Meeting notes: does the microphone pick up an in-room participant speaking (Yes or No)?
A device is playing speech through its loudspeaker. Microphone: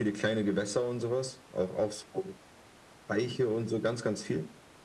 No